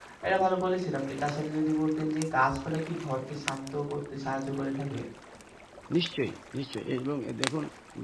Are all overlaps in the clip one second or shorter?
Yes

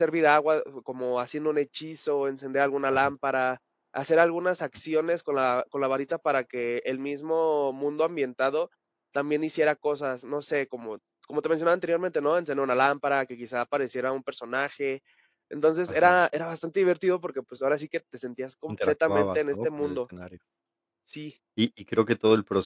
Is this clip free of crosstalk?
No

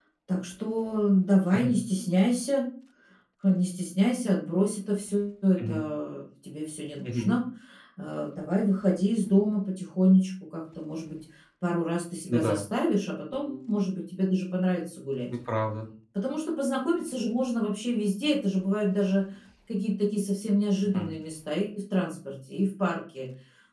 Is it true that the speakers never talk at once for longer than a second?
Yes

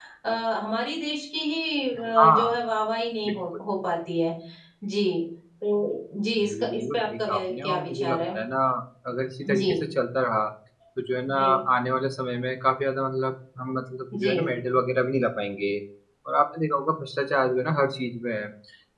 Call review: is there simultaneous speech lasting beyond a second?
Yes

